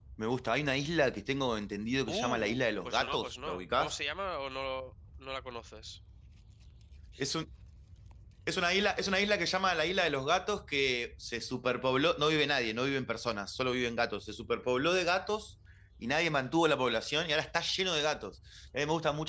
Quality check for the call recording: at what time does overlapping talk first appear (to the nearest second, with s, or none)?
2 s